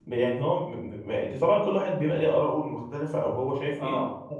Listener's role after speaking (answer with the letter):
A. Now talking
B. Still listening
A